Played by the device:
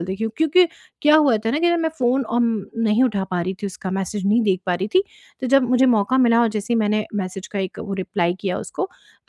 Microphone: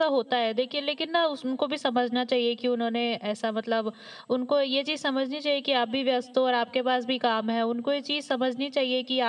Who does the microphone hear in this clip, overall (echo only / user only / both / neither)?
user only